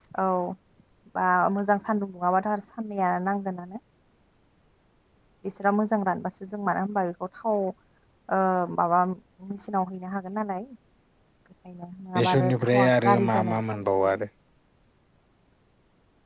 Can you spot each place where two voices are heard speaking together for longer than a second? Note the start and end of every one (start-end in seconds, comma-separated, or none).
12.2-14.2